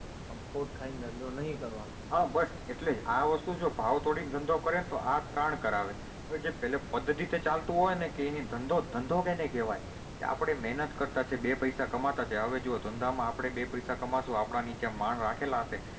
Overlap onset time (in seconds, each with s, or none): none